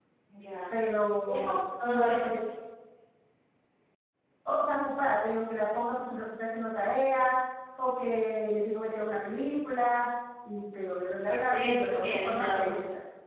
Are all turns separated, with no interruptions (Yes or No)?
No